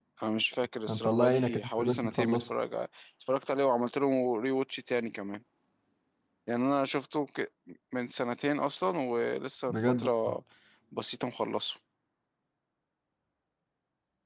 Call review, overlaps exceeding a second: present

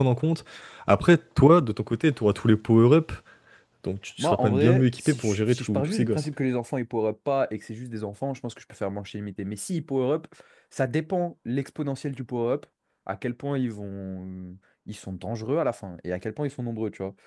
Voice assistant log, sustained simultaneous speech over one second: present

